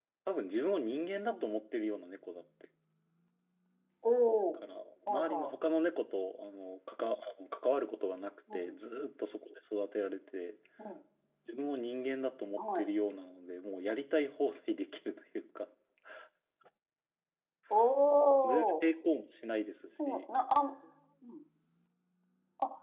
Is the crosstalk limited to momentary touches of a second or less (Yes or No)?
Yes